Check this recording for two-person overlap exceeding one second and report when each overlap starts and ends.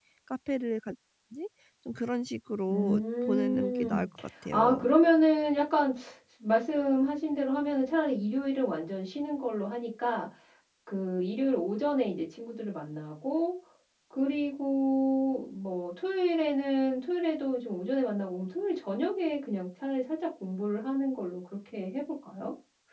2.7-4.0

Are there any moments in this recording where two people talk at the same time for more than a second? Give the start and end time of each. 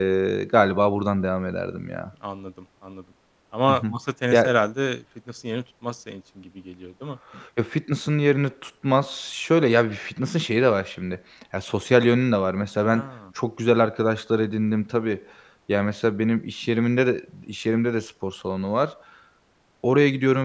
none

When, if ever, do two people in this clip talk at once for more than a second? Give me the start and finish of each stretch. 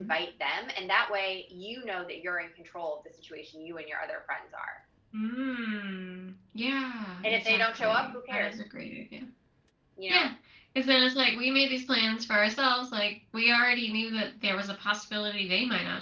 7.2-8.5

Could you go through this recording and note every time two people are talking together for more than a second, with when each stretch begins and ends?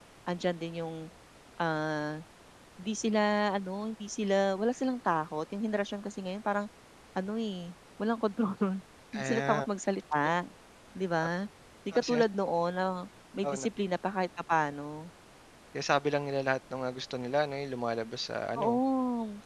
none

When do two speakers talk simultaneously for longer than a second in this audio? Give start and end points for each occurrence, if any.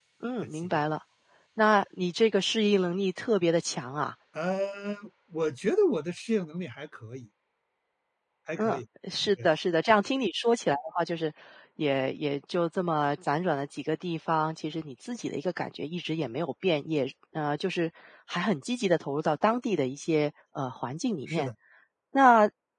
none

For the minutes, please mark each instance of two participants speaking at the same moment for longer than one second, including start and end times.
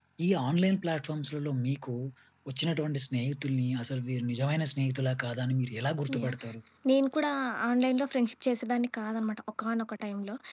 none

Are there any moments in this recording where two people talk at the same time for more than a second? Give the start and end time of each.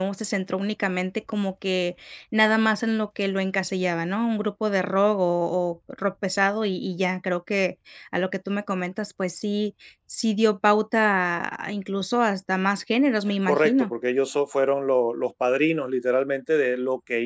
none

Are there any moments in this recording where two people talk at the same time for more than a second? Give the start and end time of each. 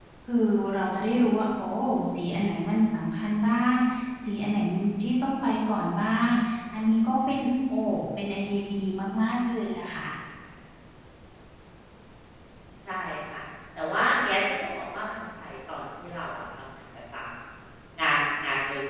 none

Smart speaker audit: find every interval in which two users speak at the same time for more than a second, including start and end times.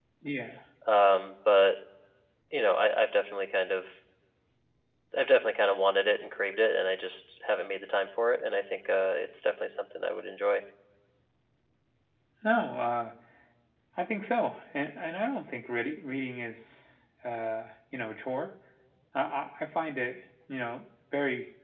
none

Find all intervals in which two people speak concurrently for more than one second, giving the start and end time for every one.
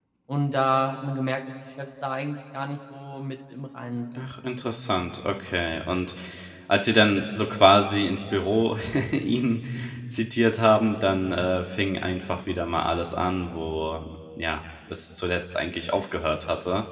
none

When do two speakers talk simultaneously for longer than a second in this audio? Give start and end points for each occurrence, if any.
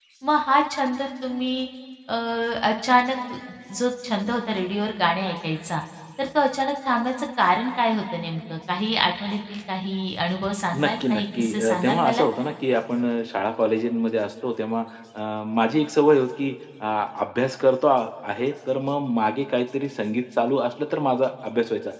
10.8-12.2

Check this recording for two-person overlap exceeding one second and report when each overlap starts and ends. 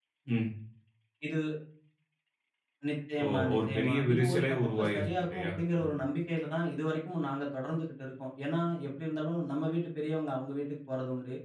3.2-5.9

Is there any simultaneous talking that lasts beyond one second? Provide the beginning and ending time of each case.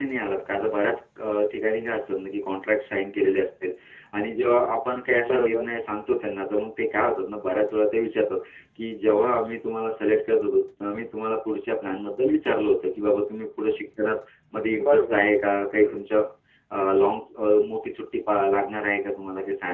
none

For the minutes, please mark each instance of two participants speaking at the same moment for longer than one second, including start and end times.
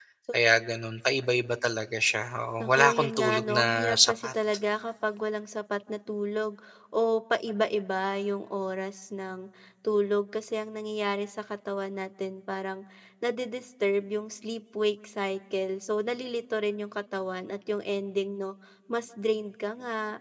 2.6-4.3

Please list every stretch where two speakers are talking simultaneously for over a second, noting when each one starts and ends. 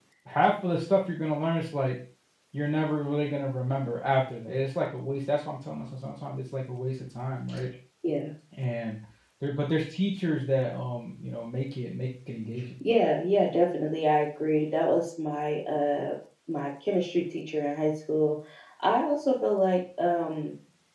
none

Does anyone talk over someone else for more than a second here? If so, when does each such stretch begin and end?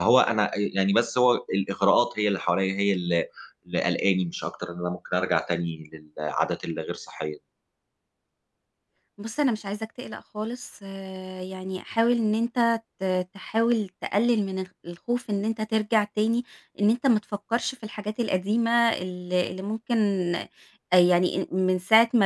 none

